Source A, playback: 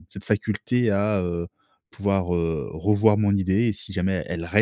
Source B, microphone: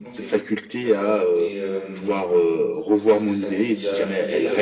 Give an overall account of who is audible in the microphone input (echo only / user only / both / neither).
both